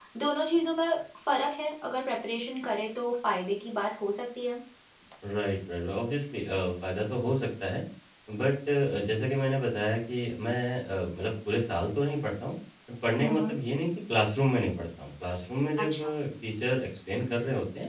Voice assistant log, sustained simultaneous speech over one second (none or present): none